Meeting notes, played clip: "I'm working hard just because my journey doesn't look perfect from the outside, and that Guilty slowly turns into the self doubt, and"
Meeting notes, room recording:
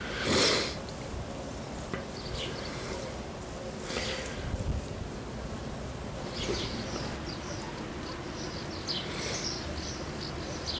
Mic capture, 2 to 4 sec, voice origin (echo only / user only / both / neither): neither